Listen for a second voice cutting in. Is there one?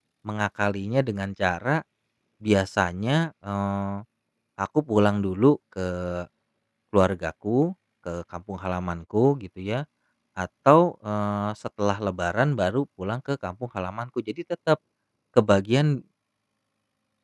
No

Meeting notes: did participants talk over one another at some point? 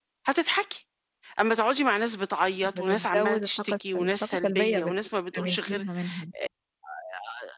Yes, from 2.6 s

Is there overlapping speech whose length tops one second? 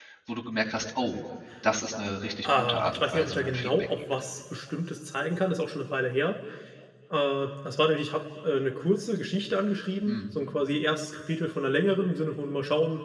Yes, from 2.4 s

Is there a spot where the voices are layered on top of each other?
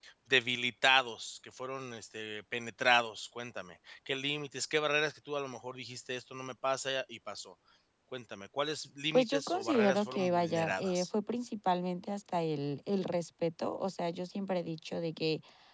Yes, from 9.1 s

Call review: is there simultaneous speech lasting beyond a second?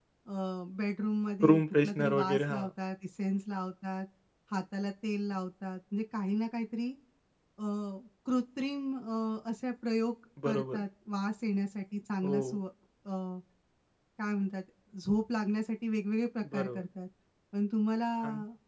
Yes, from 1.4 s

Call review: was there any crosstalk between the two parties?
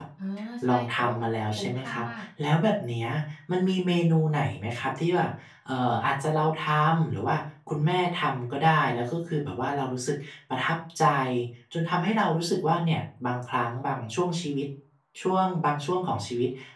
Yes, from 0.7 s

